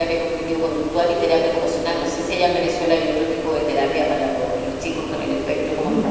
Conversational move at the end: taking over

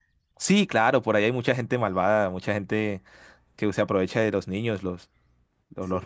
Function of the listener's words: taking over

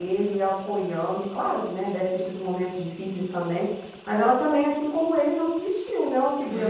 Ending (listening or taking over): taking over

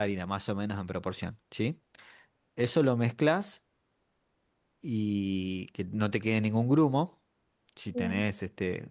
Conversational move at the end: listening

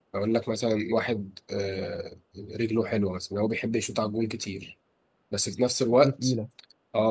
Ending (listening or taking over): listening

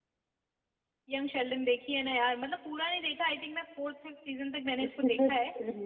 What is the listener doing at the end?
taking over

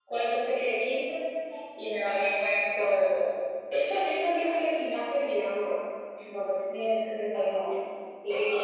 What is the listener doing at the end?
listening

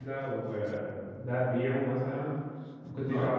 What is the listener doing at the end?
listening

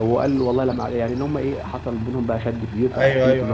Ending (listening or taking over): taking over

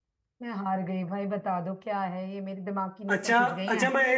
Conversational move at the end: taking over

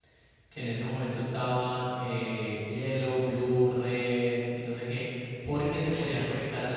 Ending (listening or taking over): listening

